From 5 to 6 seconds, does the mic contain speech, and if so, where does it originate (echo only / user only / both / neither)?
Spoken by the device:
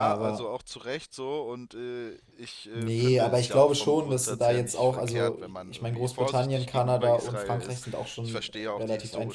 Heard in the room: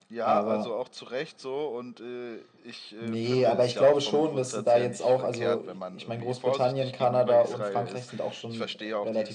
echo only